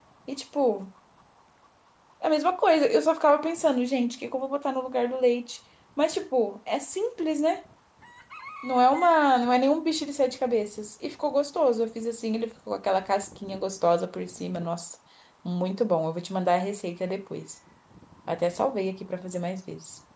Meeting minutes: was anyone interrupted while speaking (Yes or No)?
No